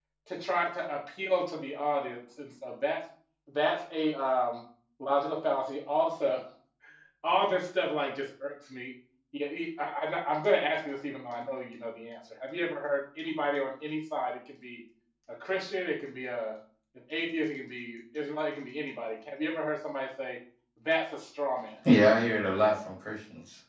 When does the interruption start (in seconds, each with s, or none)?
none